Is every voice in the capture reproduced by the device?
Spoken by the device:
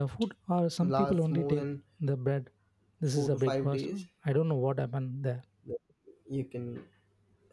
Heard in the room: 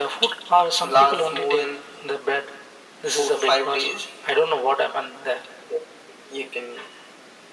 Yes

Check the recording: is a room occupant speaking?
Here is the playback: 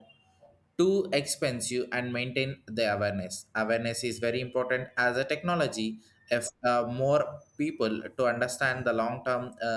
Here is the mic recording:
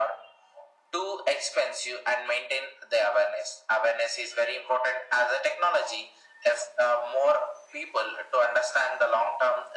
No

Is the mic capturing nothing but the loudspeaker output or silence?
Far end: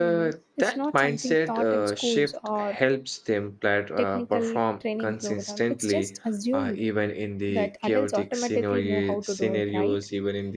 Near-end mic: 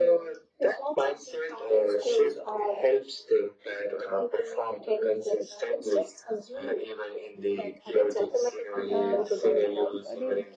No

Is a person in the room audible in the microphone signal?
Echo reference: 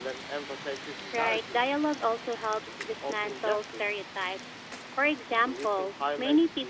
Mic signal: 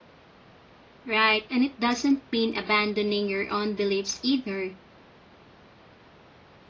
Yes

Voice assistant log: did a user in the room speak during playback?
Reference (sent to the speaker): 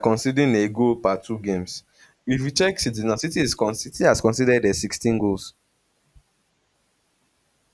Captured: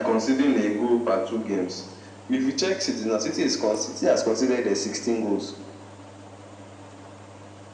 No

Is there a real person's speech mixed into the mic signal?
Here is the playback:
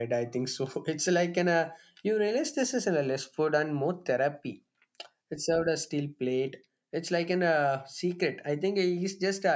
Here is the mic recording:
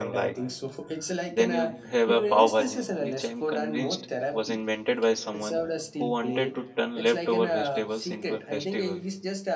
Yes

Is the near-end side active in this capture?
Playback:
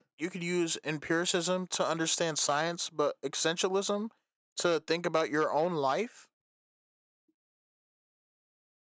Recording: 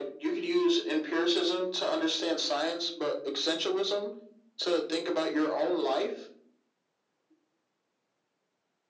No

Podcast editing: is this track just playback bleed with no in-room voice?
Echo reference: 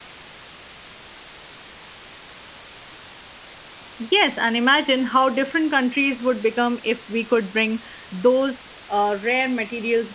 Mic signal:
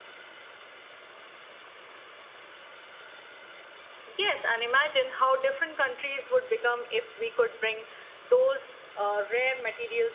Yes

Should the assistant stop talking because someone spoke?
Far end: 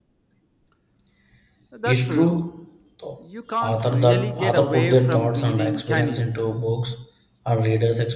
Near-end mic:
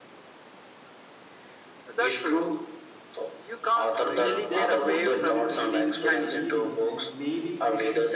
Yes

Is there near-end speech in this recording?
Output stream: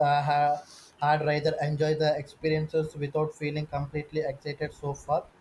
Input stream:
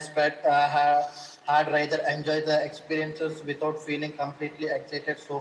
No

